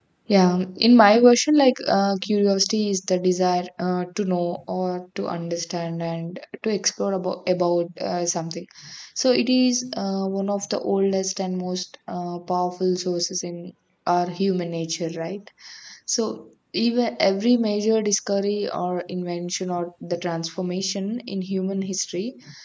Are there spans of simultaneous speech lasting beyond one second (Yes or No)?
No